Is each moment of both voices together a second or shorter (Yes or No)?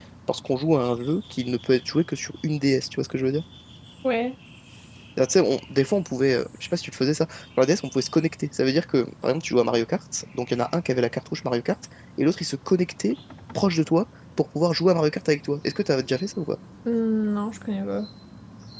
Yes